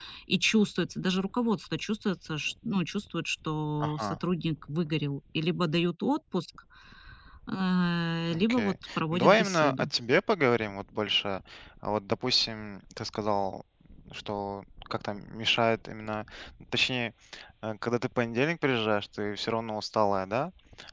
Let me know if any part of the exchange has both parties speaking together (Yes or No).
Yes